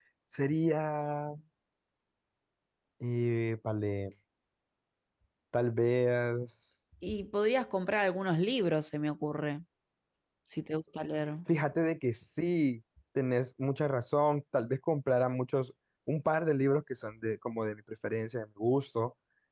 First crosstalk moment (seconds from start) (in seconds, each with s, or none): none